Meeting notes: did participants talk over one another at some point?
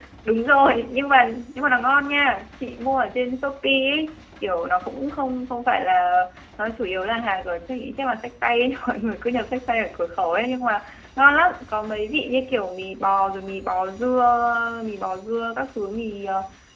No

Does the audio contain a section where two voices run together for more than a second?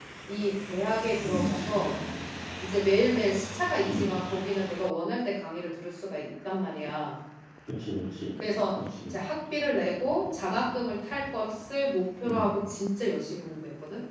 No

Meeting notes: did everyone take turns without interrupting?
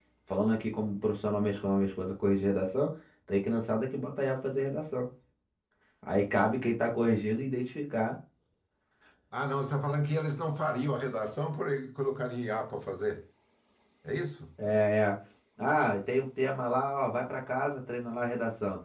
Yes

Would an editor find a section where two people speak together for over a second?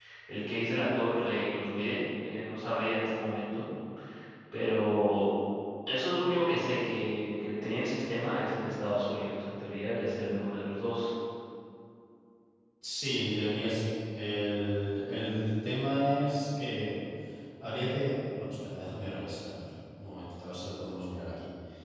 No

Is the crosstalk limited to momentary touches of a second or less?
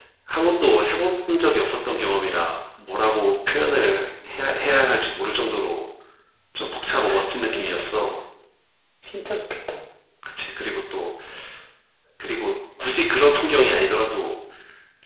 No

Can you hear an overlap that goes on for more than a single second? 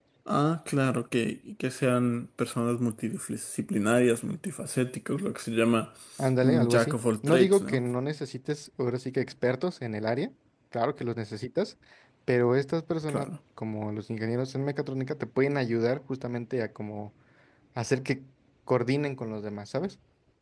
Yes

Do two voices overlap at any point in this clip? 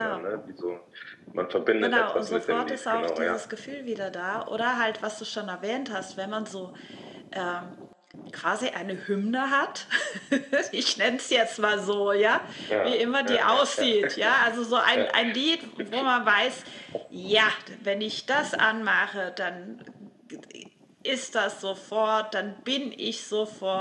Yes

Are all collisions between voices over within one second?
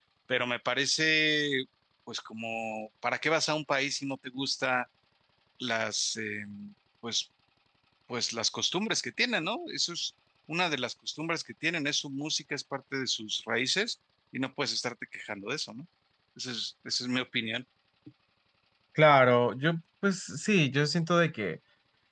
Yes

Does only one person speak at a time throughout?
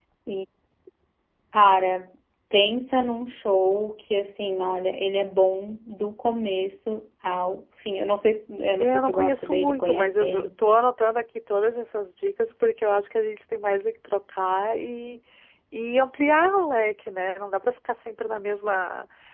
No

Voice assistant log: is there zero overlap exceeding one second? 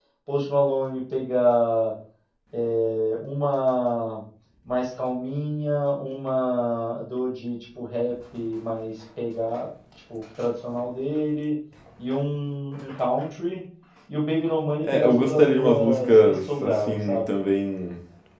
No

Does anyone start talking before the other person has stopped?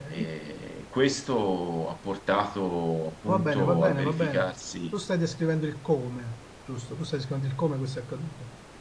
Yes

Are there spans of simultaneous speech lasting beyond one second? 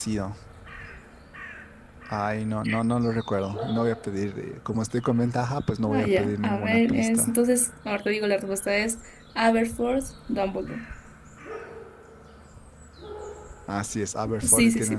Yes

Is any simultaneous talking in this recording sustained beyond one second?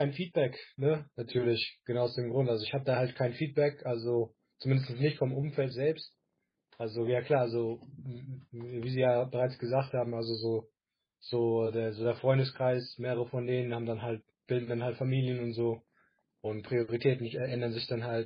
No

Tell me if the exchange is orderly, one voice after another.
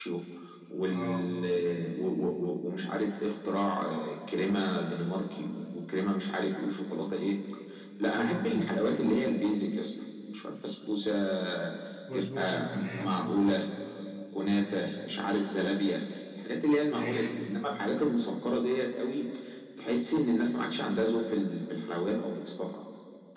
No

